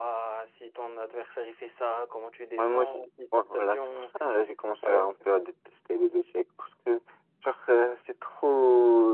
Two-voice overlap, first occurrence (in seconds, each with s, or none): 2.6 s